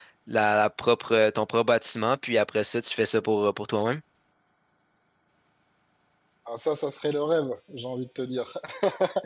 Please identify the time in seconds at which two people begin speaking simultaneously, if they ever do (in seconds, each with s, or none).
none